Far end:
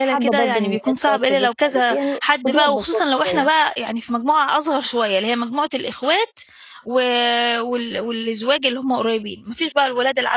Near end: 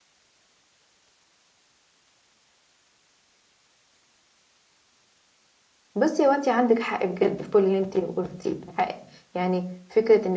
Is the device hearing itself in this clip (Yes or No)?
No